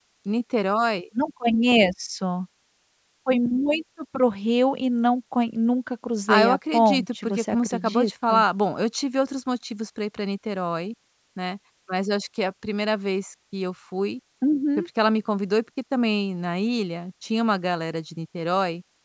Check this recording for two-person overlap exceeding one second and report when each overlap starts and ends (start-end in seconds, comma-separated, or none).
6.3-8.4